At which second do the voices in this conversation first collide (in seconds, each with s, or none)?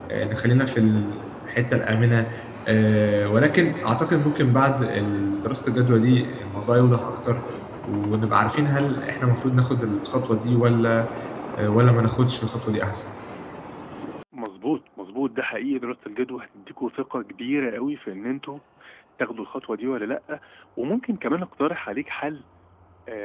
none